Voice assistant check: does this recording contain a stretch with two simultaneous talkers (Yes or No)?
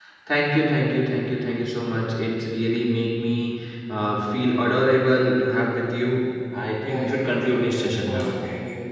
Yes